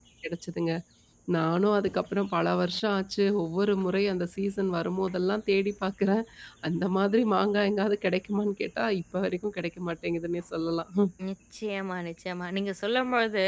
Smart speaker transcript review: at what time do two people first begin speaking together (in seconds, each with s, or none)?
none